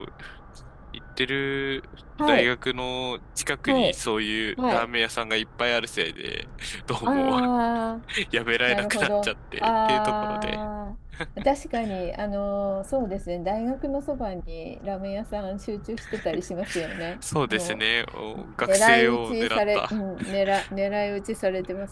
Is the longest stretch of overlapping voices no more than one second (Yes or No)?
No